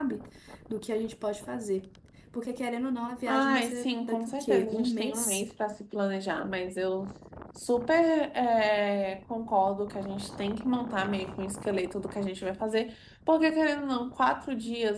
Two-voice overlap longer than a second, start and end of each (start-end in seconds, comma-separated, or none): 3.3-5.4